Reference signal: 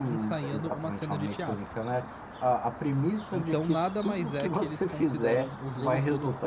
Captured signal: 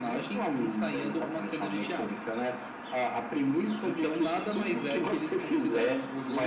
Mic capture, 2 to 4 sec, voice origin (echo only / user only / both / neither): echo only